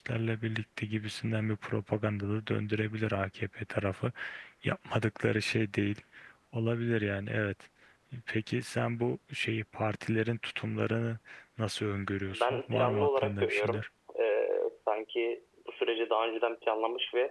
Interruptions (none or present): present